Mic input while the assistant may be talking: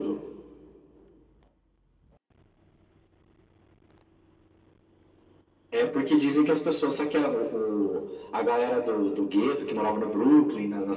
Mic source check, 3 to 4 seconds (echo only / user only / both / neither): neither